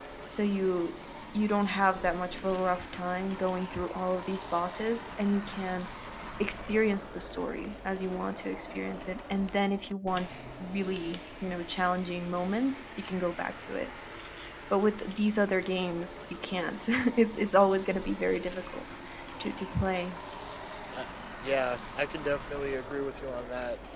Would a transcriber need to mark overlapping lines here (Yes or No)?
No